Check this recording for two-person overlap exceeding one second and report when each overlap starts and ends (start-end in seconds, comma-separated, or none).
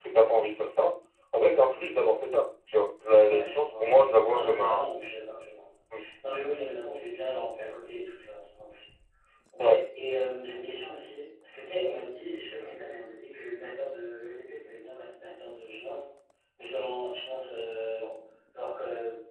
3.2-4.9